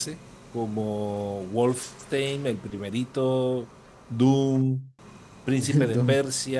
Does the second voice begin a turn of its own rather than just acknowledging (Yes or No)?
No